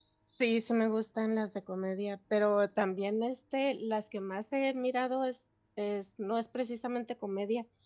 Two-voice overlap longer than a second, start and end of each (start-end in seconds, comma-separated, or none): none